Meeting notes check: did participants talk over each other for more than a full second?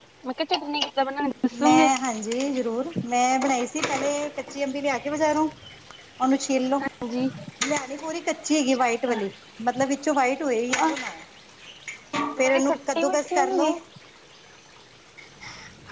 Yes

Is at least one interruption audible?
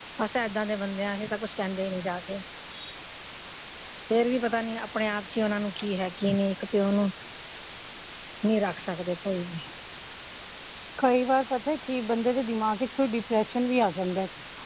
No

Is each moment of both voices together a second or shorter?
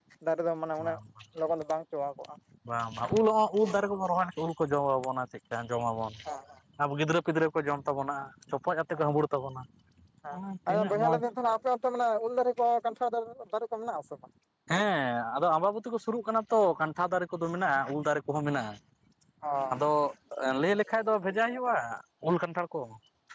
Yes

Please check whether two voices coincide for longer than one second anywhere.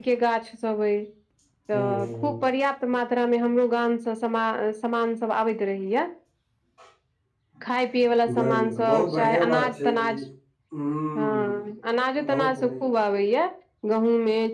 Yes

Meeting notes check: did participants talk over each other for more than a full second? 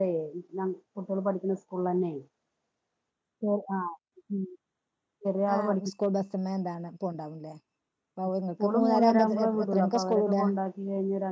Yes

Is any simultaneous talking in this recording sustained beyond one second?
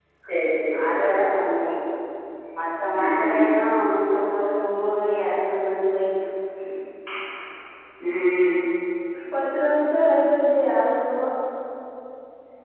No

